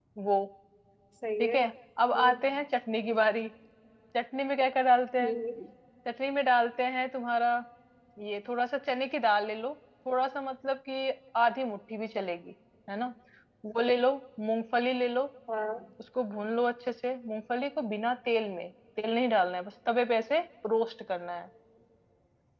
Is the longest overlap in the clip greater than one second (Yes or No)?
No